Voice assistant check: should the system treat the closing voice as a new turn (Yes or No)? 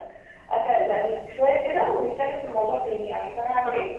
Yes